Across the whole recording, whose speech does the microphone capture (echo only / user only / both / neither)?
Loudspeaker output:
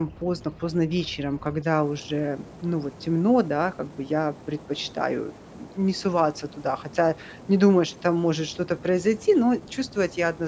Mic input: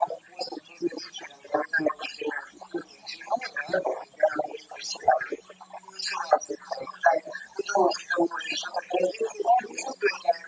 echo only